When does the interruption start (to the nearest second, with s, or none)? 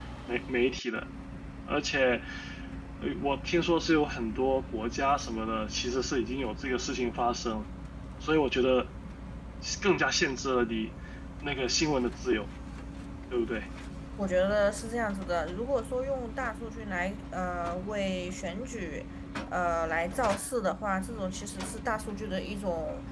none